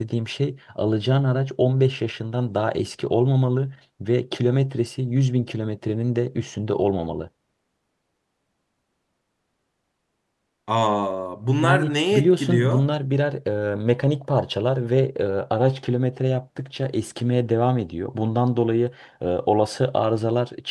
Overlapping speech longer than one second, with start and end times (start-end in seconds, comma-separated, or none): 11.6-12.8